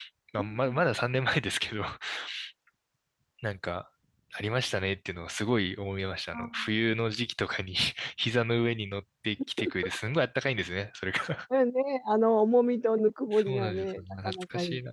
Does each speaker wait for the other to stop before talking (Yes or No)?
No